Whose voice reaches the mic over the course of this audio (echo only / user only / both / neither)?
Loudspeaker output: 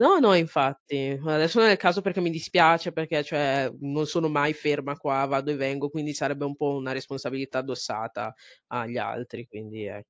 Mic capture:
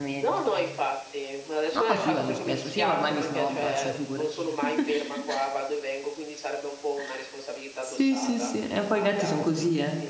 both